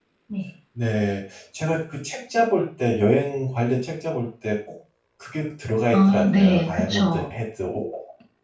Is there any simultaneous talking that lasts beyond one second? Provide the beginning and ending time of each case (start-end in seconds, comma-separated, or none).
5.9-7.3